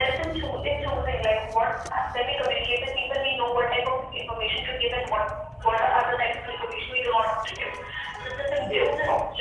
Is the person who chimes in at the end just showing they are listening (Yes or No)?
Yes